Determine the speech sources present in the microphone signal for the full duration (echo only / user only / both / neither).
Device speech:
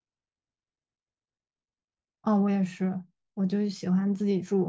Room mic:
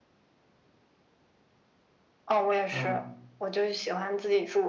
both